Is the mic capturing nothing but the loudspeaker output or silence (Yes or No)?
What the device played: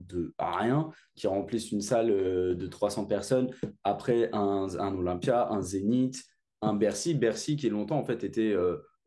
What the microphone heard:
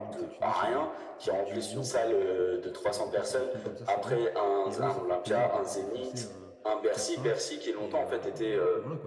No